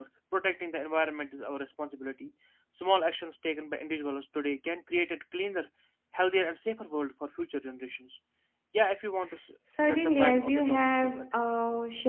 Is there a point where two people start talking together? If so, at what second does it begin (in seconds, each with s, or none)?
9.7 s